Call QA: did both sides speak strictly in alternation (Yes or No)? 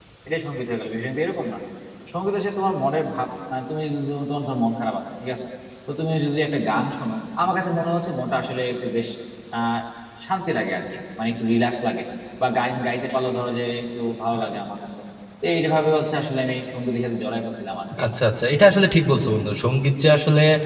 Yes